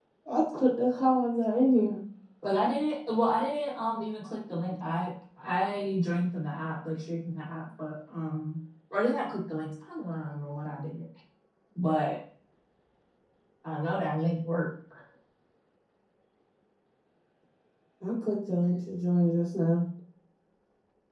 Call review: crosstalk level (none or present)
none